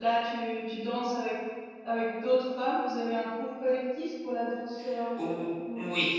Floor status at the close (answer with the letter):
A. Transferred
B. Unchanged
A